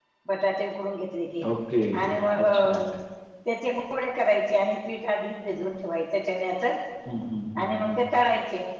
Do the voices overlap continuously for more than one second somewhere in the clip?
No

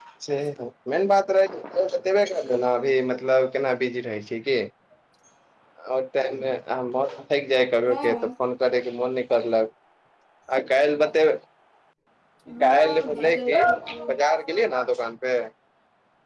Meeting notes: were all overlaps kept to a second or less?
No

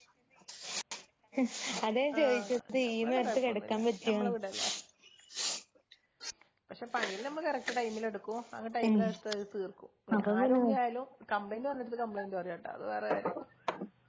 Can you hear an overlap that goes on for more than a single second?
Yes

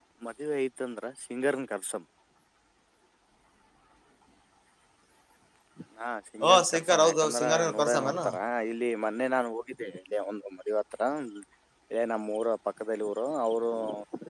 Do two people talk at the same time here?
Yes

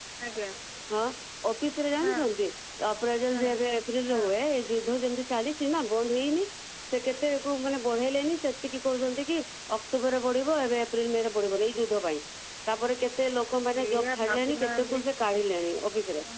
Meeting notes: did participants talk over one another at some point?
Yes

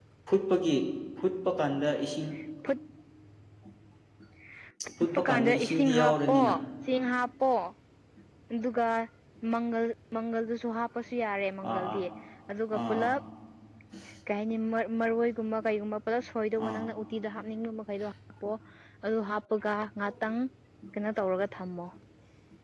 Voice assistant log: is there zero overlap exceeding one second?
No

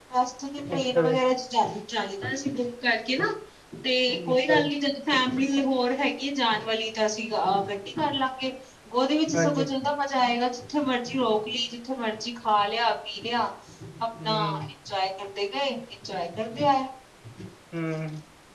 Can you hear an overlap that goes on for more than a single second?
No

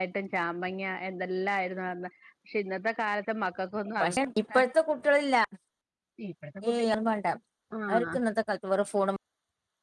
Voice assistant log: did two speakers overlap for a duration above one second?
No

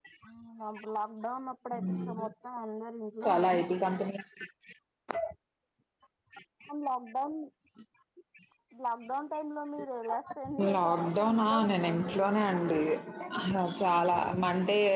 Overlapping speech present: Yes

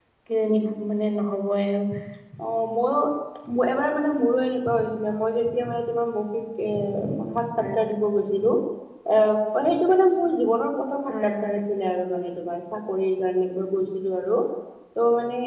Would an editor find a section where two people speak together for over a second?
No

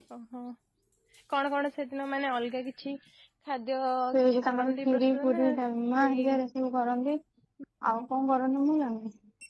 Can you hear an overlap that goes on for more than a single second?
Yes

